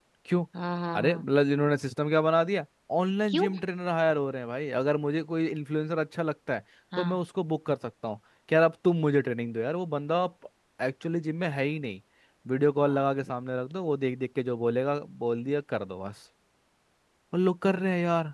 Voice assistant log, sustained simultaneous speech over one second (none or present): none